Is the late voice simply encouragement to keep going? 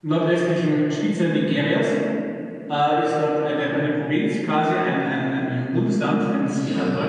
No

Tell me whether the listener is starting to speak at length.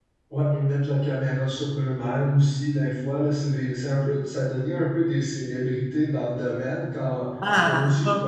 No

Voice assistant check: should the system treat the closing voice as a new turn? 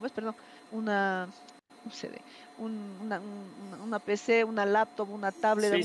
No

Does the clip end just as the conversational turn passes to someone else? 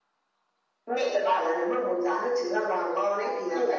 No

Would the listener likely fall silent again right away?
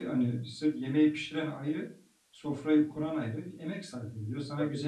Yes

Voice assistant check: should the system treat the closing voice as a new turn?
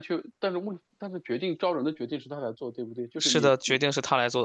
Yes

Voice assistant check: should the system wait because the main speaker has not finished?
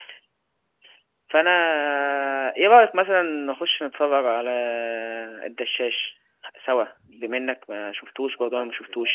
No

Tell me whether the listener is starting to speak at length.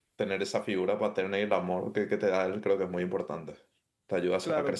Yes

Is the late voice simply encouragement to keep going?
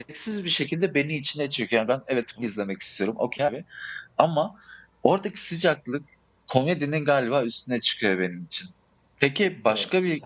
Yes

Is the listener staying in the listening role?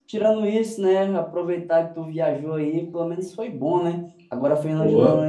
Yes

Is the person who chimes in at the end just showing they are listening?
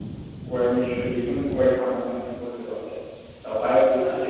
Yes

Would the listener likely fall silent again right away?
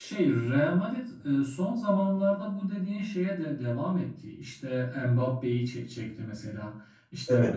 Yes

